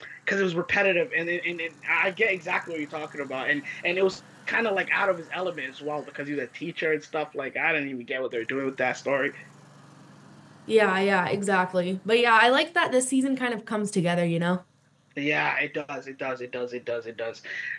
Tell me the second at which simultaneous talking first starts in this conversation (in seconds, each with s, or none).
none